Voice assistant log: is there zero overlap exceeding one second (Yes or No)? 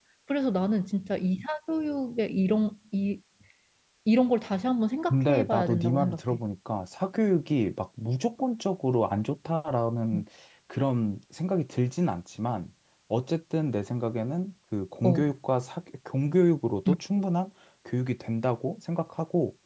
No